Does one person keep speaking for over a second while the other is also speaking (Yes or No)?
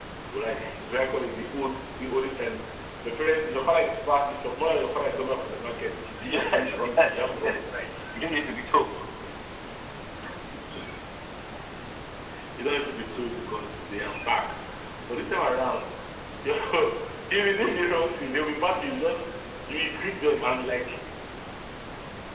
Yes